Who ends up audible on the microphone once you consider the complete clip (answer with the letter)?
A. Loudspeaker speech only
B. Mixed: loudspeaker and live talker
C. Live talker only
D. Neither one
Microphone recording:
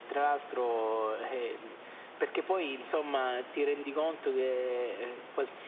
A